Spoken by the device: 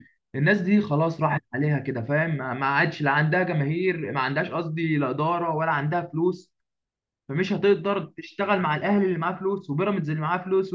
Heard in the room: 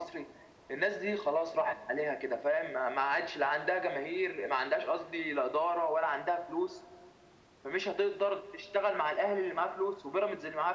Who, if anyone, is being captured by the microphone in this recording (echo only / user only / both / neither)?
echo only